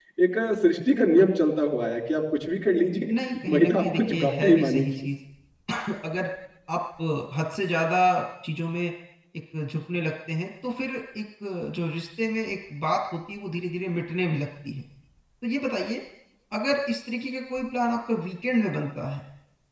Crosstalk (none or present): present